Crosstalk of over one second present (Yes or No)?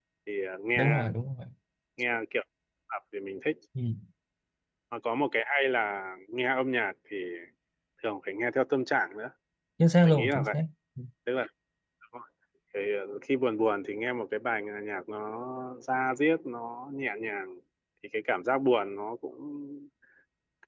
No